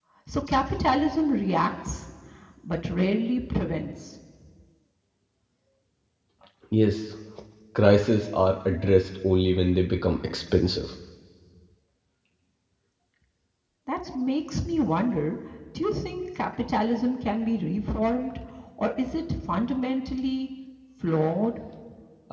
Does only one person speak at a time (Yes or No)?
Yes